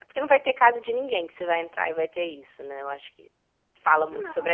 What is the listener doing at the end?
listening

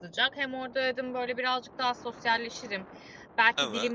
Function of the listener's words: listening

